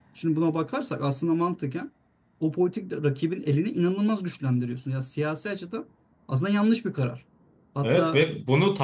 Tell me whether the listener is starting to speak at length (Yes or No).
Yes